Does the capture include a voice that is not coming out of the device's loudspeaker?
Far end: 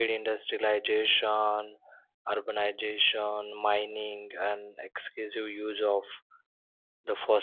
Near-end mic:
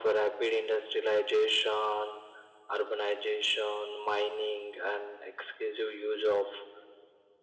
No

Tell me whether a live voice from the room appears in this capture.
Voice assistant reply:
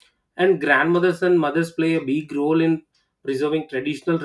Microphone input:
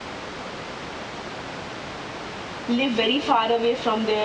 Yes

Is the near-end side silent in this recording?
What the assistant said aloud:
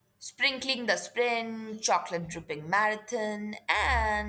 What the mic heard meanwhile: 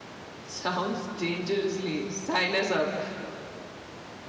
No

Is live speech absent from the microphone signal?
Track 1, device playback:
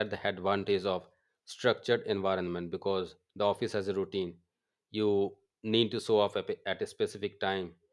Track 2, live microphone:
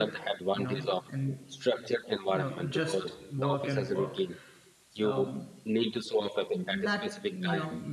No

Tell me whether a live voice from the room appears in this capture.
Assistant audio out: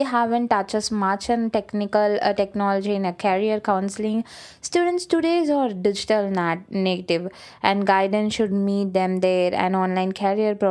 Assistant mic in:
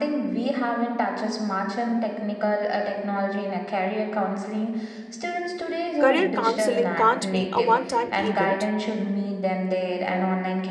Yes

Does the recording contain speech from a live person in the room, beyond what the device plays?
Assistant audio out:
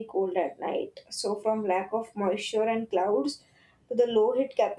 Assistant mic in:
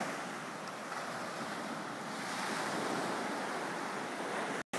No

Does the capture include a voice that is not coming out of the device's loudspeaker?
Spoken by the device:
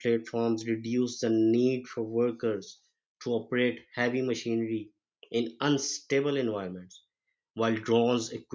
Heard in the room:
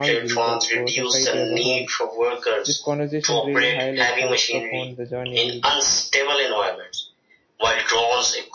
Yes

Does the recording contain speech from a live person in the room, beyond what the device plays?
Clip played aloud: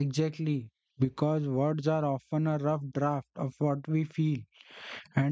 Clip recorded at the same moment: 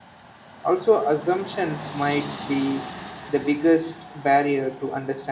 Yes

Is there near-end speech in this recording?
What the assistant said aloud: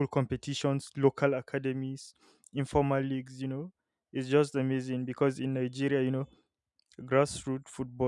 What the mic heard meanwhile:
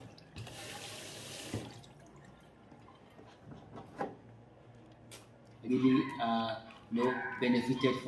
Yes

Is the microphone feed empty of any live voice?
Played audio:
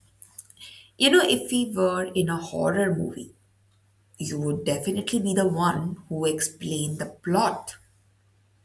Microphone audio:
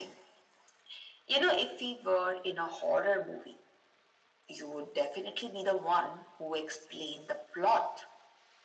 Yes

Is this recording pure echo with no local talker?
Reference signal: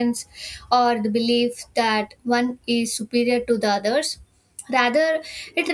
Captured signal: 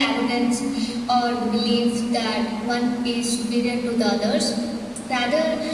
Yes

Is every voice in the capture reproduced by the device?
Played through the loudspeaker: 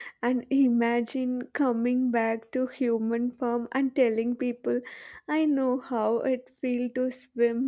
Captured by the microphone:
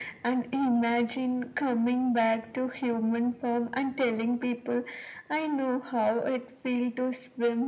Yes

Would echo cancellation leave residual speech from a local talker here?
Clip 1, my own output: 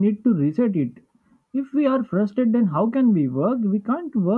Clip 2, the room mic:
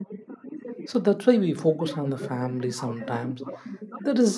Yes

